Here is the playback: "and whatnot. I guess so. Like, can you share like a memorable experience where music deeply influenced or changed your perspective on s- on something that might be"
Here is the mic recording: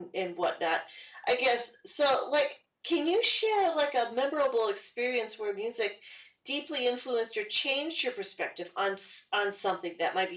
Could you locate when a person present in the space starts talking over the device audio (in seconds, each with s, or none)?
none